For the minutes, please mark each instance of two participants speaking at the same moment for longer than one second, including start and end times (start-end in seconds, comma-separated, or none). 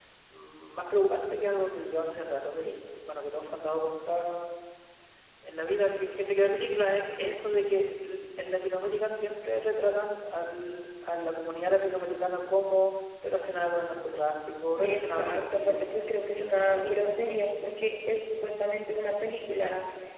14.8-17.4